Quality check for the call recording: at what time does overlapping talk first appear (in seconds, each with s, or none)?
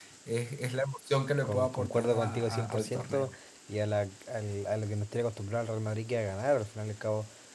1.4 s